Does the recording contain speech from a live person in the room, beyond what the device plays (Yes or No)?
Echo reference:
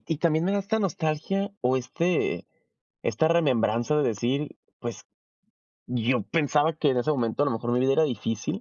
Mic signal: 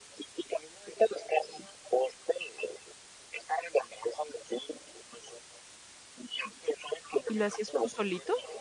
Yes